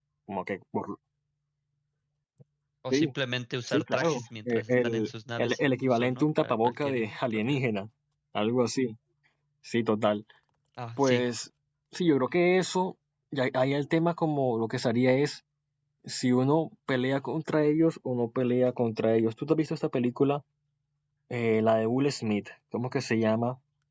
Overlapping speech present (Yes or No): Yes